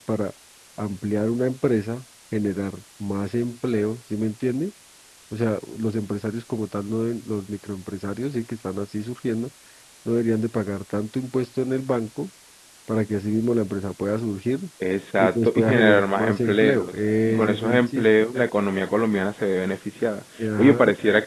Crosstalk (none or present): present